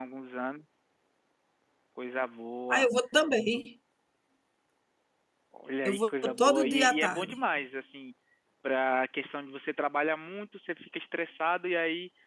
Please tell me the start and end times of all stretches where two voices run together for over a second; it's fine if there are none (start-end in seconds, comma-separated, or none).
5.8-7.4